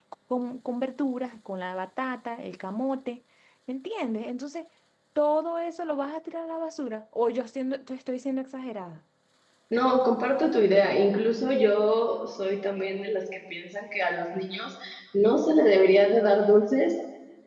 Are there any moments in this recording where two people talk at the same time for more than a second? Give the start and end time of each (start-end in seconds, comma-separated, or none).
none